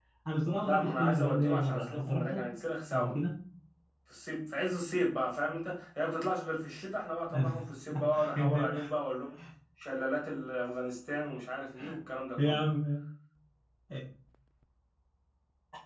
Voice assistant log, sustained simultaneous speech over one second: present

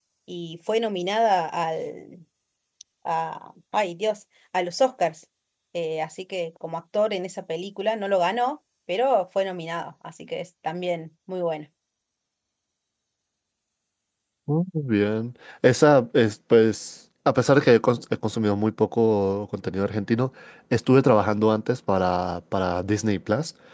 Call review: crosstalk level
none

